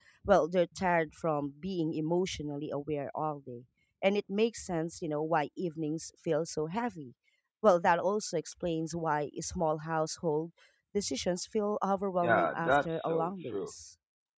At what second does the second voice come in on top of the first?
12.2 s

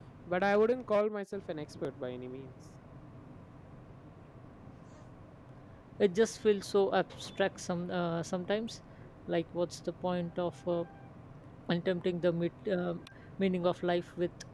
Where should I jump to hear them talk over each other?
none

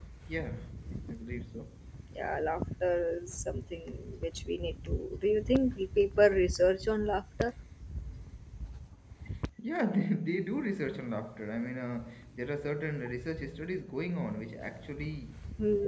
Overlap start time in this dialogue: none

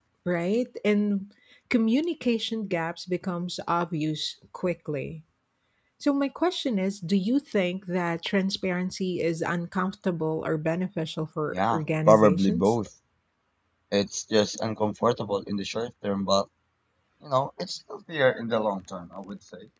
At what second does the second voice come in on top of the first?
11.5 s

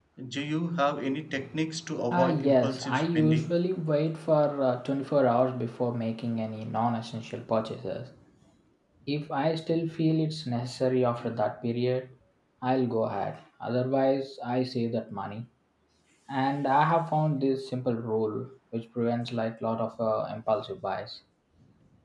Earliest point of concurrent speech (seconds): 2.1 s

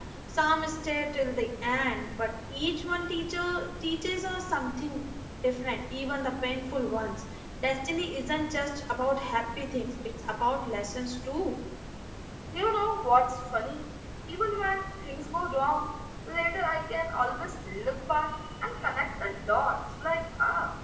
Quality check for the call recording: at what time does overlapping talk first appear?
none

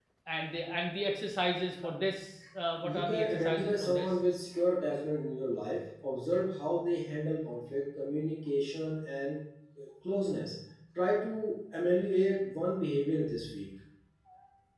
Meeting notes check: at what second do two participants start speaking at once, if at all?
2.8 s

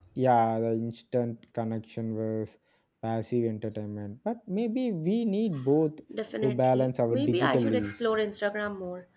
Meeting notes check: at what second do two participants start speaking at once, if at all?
6.4 s

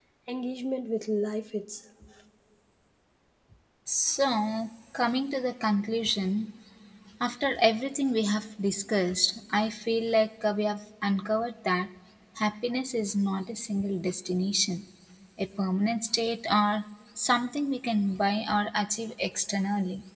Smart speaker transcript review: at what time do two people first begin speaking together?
none

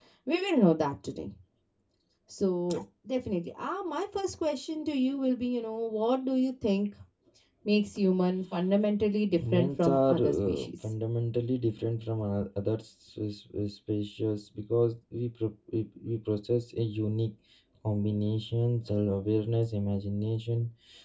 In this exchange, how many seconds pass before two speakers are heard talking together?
9.4 s

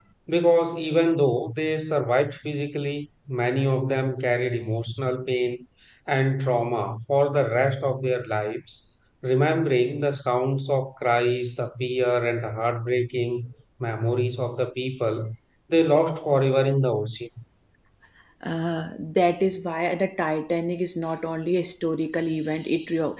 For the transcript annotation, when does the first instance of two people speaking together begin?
none

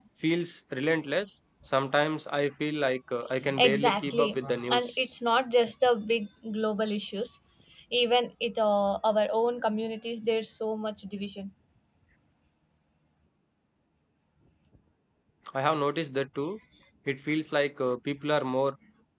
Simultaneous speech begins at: 3.4 s

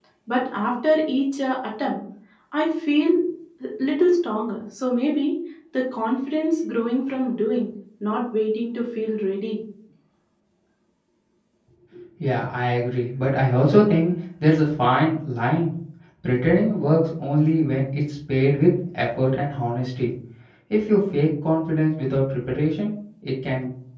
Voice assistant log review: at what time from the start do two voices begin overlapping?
none

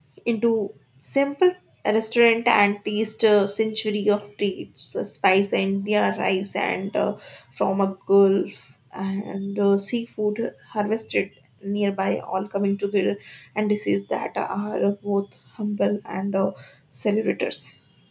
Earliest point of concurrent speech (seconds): none

